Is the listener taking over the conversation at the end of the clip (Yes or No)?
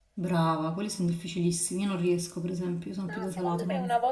Yes